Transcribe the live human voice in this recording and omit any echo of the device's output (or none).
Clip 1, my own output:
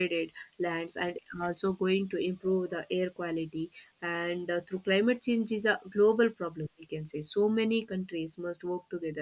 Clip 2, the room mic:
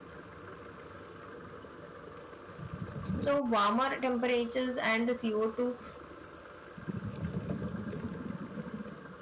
So warmer temperatures and the CO2